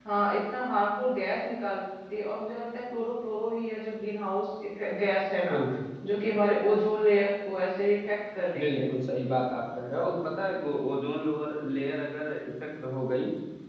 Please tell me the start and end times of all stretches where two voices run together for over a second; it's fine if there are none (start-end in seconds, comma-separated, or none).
none